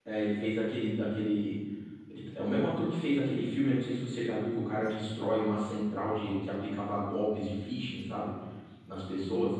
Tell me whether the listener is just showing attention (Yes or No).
Yes